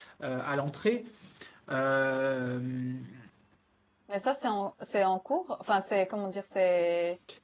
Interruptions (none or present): none